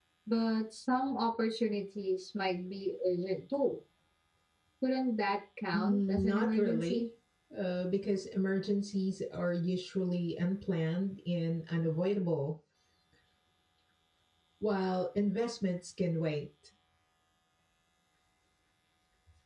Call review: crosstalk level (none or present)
present